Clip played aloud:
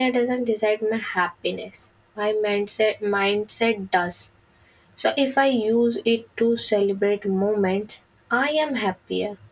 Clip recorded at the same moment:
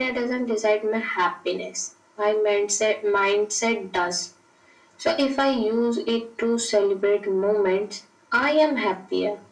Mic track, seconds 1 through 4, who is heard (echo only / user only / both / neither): echo only